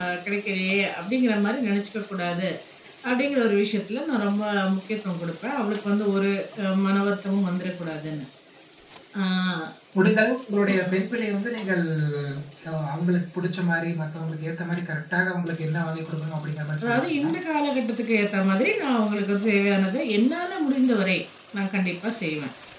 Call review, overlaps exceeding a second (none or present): none